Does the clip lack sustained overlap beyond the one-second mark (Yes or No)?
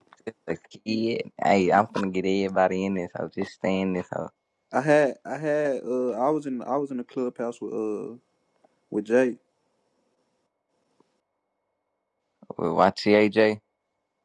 Yes